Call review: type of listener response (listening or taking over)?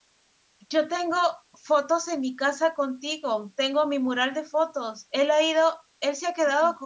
listening